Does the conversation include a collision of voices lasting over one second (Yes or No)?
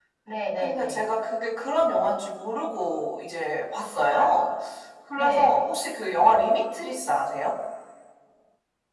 No